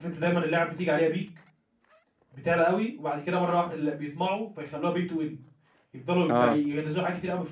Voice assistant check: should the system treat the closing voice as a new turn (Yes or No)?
No